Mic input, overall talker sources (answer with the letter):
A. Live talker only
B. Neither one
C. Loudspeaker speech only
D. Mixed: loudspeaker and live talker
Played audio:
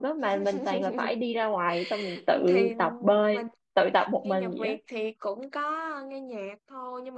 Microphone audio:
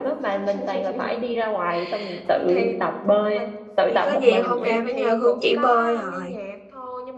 D